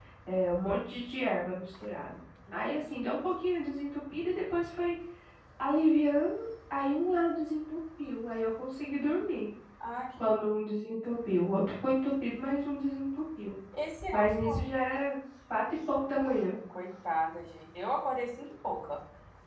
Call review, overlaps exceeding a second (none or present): none